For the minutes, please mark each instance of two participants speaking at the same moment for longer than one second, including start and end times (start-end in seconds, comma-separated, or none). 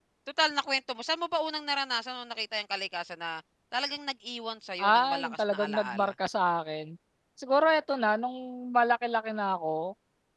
4.8-6.1